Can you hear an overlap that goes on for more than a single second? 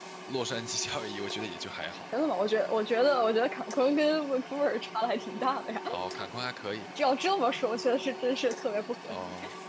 No

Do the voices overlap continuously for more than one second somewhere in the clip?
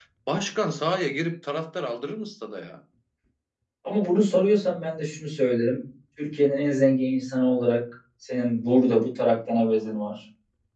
No

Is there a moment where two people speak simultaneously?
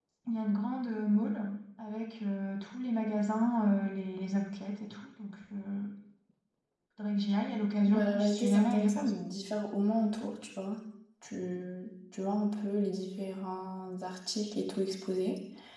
Yes, from 7.9 s

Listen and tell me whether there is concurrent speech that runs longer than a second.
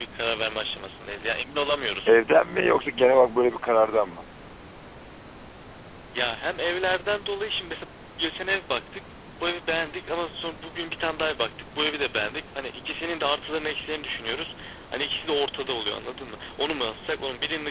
No

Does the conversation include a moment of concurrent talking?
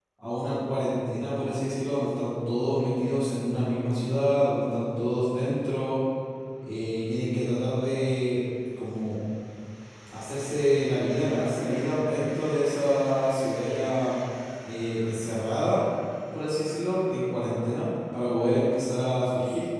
No

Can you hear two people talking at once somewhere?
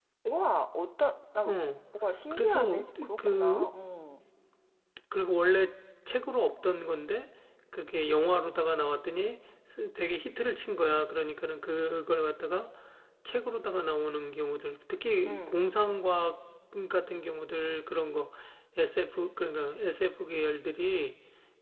Yes, from 2.3 s

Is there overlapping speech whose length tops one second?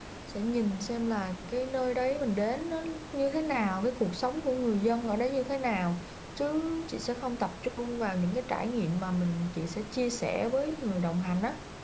No

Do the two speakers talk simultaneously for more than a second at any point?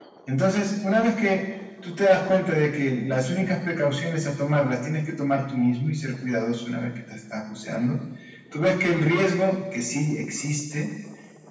No

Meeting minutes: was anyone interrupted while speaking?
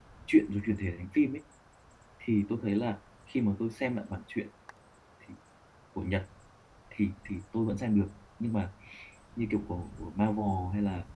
No

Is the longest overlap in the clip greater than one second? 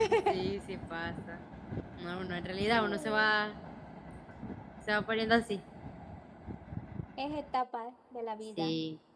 No

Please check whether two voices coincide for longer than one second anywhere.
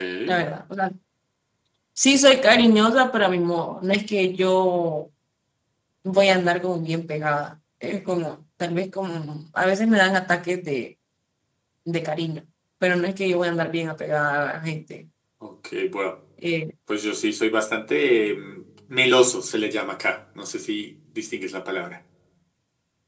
No

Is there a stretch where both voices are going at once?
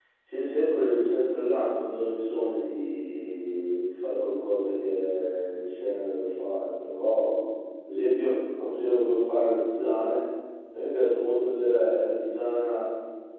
No

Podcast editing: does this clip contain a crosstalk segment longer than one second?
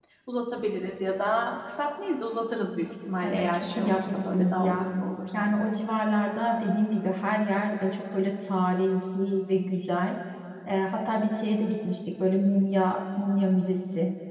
Yes, from 3.2 s

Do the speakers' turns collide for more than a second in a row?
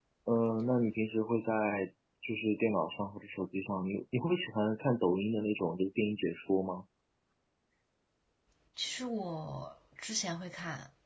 No

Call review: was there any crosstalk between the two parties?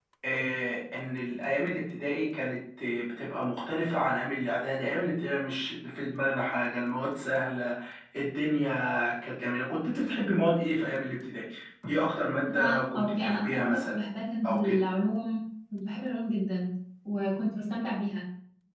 Yes, from 12.5 s

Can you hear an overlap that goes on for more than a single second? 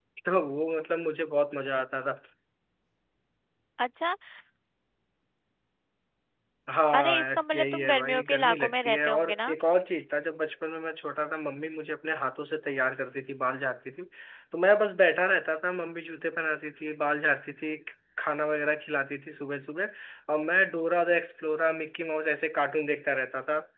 Yes, from 6.9 s

